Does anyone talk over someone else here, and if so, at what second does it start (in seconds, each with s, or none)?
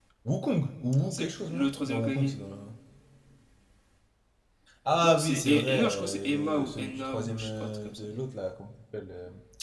1.1 s